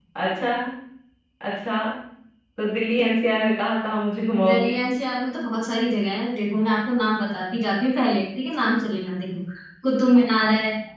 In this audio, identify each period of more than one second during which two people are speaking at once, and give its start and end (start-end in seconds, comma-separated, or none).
none